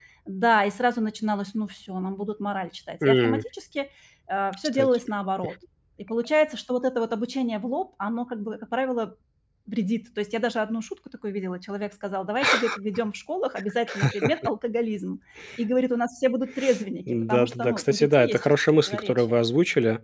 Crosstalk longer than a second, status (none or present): present